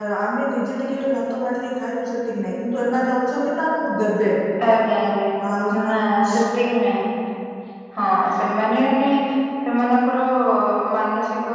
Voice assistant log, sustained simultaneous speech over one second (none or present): none